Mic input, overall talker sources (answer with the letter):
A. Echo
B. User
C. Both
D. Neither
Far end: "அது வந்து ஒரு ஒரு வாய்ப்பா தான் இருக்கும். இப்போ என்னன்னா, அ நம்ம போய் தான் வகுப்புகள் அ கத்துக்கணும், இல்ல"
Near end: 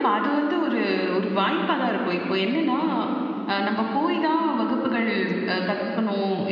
A